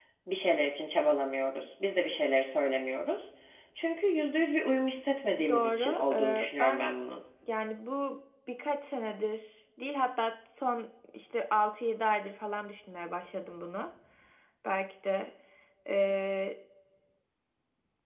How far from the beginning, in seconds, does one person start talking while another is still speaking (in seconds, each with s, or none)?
5.3 s